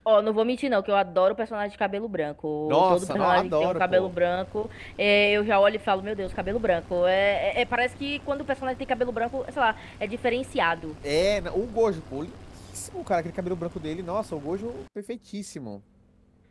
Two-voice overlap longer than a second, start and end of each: 2.7-4.1

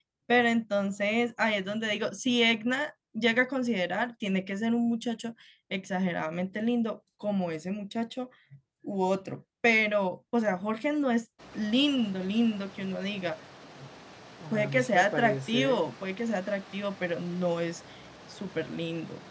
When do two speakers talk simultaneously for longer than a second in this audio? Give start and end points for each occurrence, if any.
14.5-15.8

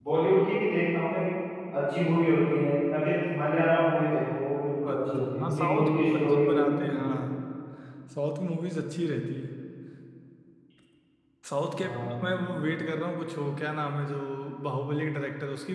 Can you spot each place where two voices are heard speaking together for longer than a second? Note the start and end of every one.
4.9-6.8

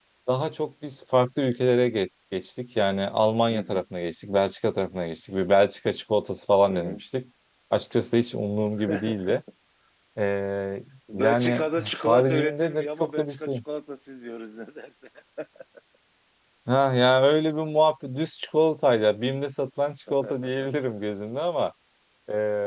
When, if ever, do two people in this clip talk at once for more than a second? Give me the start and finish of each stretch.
11.1-13.6

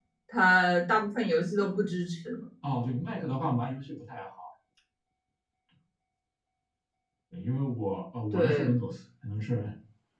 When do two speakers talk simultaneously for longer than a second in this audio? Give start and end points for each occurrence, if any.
none

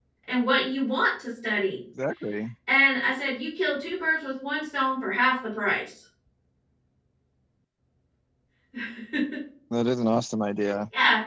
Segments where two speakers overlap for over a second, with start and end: none

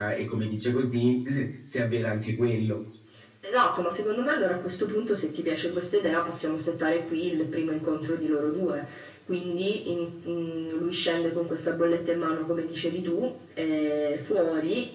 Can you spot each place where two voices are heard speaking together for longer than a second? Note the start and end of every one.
none

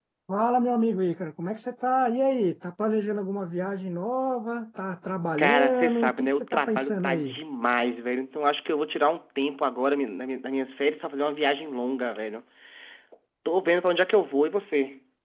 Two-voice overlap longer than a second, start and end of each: 5.4-7.4

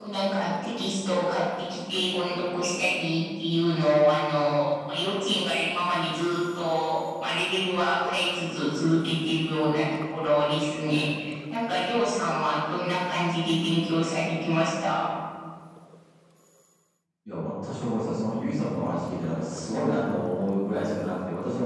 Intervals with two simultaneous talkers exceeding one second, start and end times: none

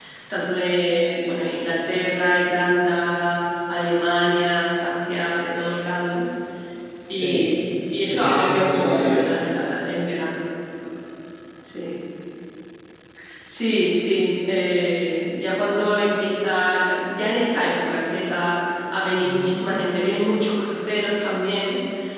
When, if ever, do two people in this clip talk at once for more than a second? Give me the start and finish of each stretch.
8.1-9.3

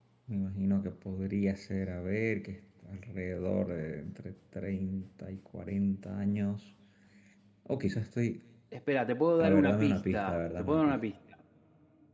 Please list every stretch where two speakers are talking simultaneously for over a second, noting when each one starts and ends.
9.4-11.0

